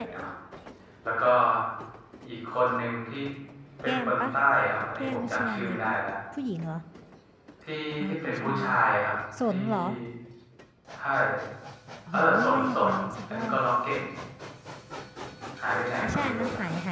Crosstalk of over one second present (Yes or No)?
Yes